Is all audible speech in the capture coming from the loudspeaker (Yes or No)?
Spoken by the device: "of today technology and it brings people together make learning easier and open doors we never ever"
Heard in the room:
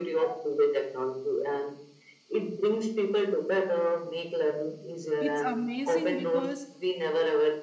No